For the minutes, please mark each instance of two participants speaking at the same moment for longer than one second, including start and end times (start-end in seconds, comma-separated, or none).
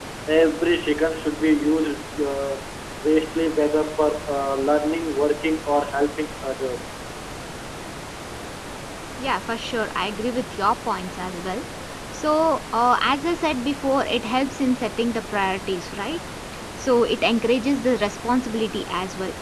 none